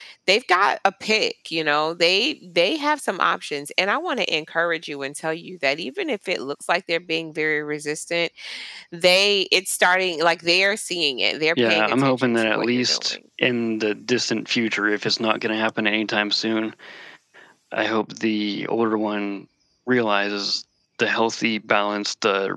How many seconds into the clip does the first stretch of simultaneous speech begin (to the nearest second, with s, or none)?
12 s